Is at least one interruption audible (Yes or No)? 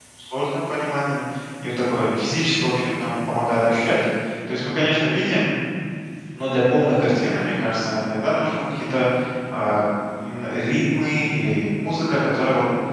No